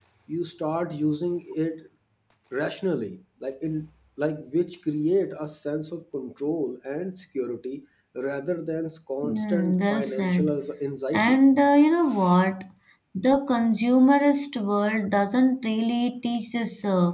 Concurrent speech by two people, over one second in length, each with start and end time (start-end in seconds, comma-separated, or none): 9.2-10.5